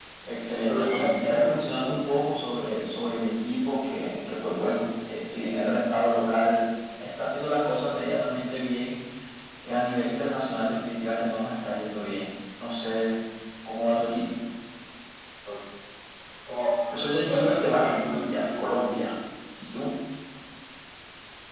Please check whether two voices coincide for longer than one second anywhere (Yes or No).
Yes